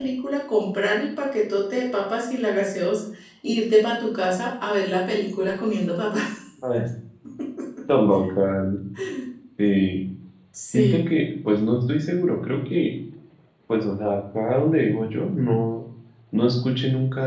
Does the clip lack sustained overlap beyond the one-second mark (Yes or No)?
Yes